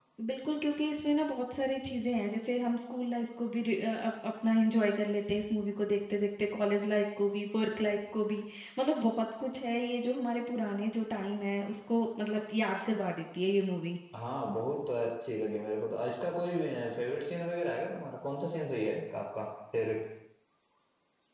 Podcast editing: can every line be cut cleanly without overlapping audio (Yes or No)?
Yes